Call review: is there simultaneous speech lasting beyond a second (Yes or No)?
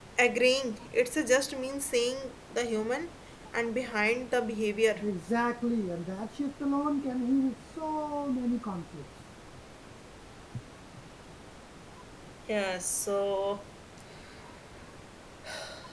No